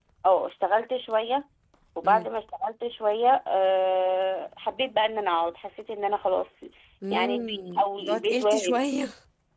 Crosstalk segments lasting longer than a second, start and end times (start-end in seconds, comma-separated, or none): 7.1-8.9